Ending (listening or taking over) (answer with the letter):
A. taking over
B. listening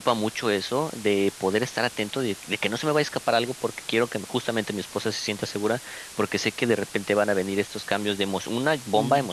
B